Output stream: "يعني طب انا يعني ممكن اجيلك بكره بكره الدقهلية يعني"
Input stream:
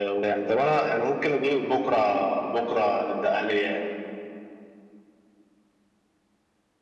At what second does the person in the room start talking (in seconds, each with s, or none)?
none